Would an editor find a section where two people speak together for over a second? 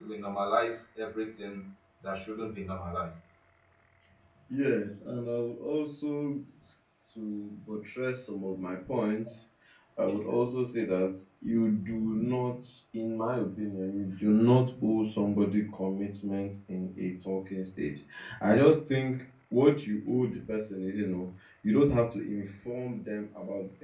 No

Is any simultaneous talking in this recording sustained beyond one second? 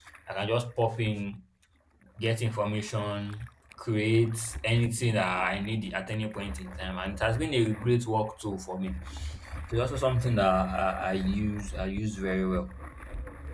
No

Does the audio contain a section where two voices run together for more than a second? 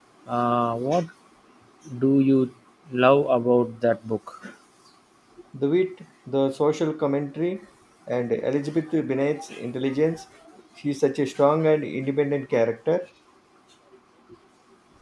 No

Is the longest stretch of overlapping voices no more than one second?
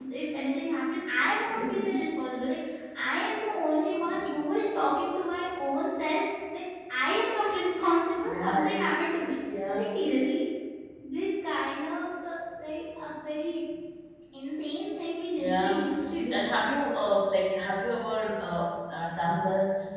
Yes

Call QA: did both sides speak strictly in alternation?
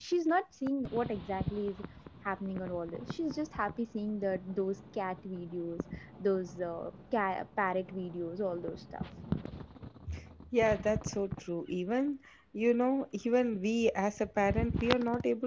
Yes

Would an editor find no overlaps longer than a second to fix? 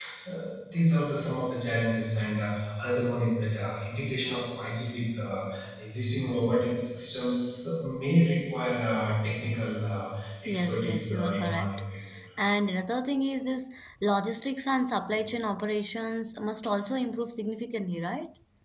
No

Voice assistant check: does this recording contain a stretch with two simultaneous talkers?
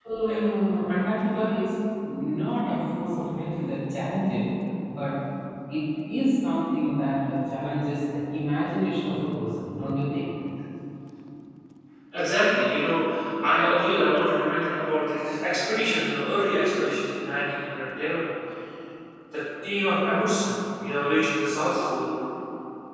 No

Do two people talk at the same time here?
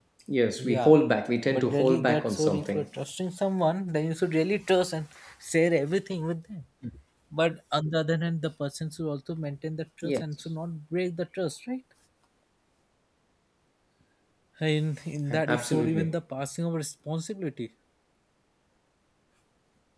Yes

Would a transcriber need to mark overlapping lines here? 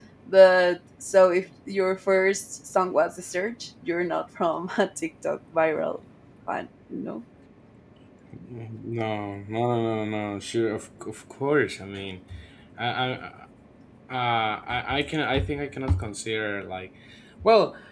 No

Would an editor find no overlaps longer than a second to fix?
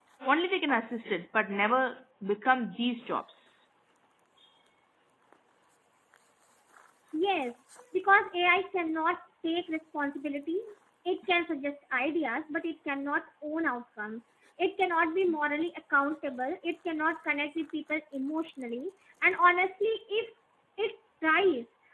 Yes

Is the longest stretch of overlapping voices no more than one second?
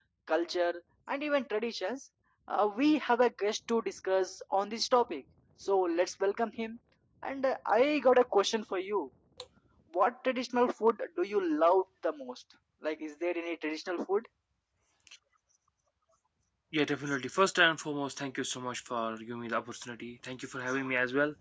Yes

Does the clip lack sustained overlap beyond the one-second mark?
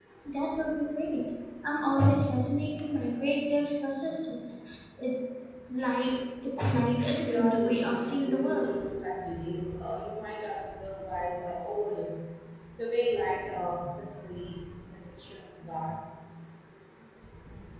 No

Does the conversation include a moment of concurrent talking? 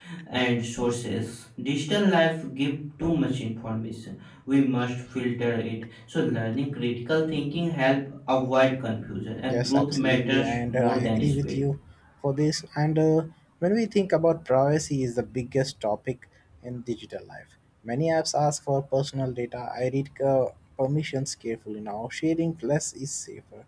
Yes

